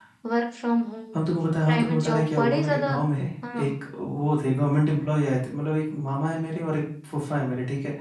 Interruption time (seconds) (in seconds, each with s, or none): 1.7 s